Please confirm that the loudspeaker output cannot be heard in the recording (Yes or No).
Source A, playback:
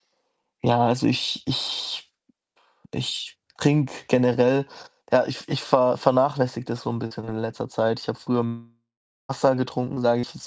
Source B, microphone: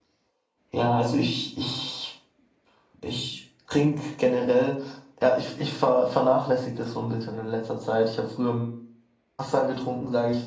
No